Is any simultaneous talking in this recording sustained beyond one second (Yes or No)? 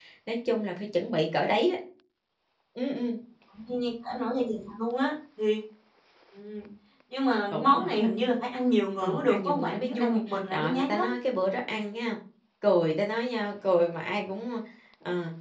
Yes